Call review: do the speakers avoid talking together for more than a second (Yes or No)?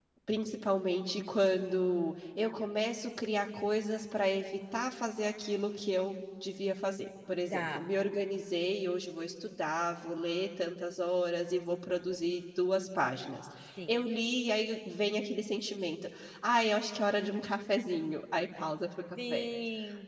Yes